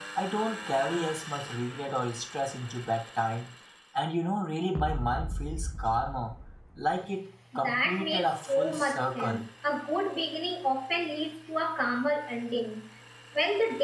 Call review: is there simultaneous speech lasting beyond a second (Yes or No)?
Yes